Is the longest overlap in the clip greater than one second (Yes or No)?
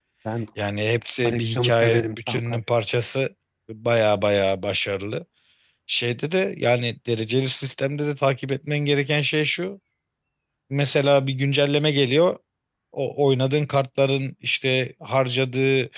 Yes